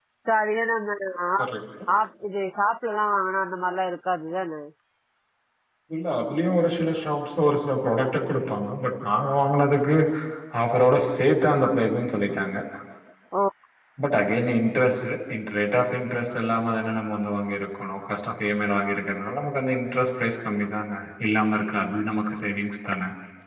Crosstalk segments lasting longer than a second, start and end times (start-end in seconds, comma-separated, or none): none